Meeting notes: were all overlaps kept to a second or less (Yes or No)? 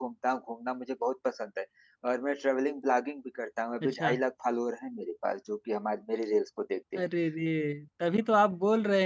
Yes